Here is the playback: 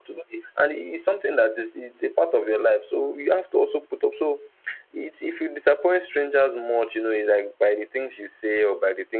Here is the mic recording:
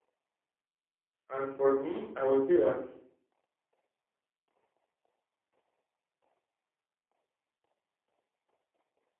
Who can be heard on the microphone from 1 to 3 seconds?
user only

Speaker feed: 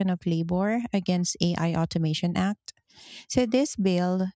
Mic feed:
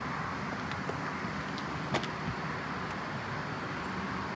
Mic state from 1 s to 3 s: neither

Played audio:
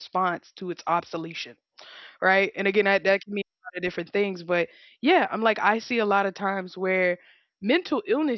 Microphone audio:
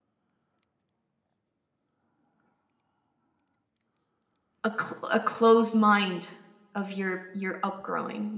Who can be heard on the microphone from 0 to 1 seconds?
neither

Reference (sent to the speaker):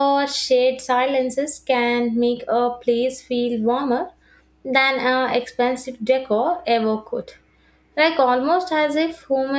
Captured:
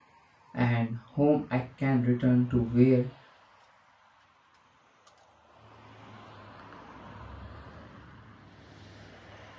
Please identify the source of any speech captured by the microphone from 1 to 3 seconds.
user only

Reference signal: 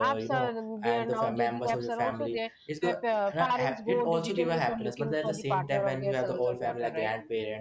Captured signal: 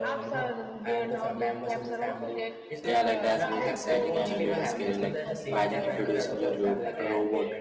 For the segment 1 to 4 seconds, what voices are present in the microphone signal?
both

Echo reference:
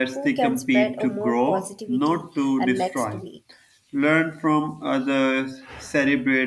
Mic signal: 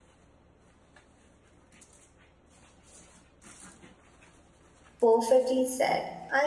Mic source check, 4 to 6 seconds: user only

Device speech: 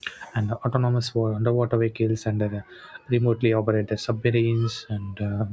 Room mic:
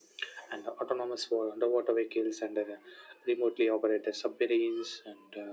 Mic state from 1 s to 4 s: echo only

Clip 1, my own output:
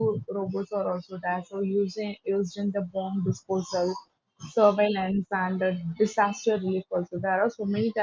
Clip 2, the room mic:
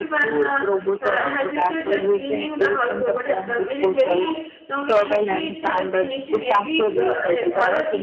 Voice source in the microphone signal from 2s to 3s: both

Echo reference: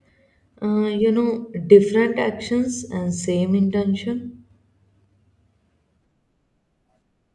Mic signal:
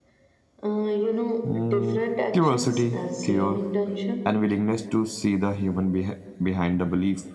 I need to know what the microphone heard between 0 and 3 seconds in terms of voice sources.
both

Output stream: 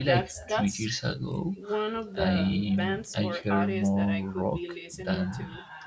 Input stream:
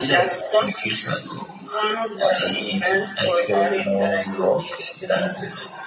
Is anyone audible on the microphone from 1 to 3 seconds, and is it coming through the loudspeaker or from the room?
echo only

